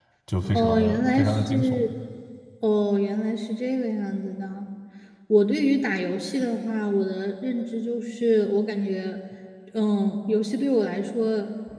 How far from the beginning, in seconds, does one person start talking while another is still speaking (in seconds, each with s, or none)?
0.5 s